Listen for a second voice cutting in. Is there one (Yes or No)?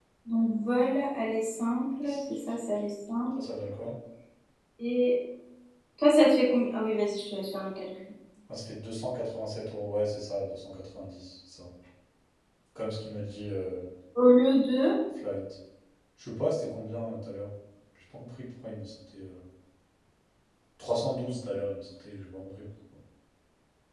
No